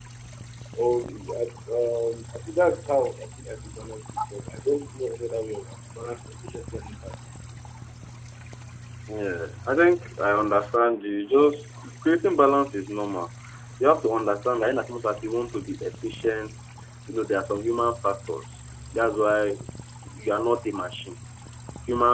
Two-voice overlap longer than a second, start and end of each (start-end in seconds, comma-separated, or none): none